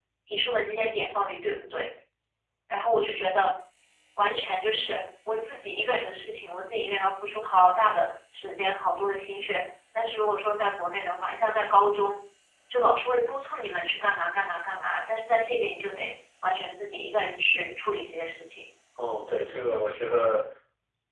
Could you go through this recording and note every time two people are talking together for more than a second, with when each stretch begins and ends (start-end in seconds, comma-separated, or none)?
none